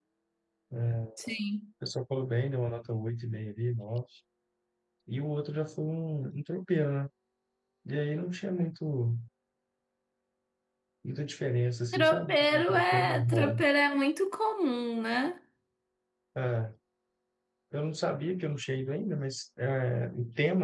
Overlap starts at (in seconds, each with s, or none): 11.9 s